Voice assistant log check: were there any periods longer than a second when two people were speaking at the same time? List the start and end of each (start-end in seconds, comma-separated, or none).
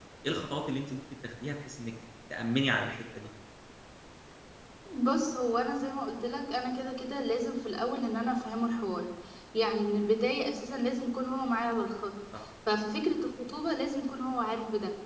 none